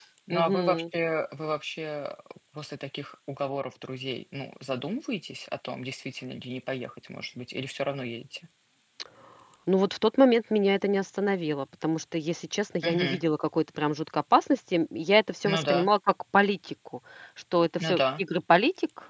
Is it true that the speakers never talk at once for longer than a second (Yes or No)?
Yes